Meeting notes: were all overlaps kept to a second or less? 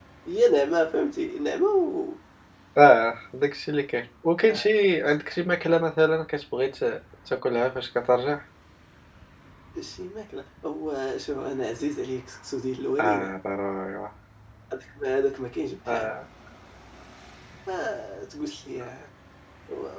Yes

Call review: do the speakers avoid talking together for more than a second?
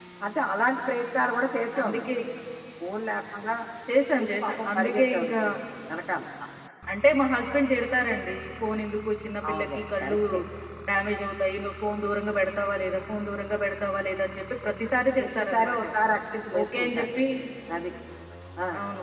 No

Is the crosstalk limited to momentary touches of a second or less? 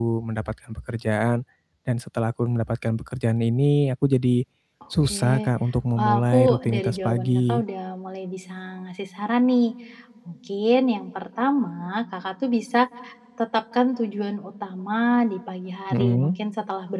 No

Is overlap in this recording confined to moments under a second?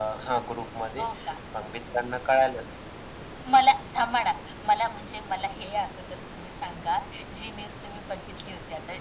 Yes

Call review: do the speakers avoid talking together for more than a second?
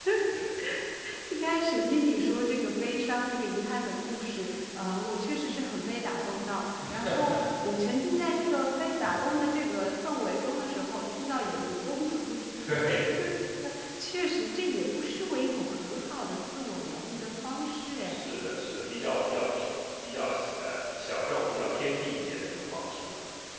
Yes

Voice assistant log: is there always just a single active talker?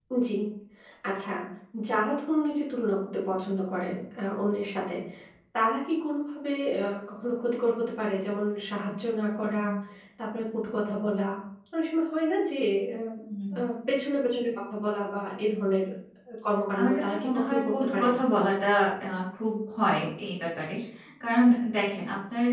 No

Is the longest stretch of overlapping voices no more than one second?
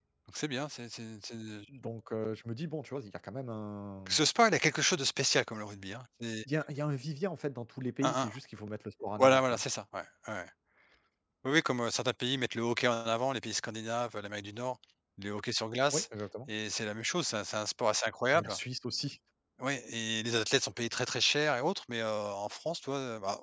Yes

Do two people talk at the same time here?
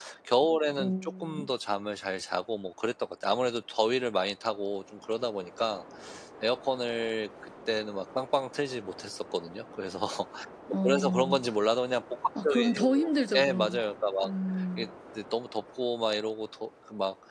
Yes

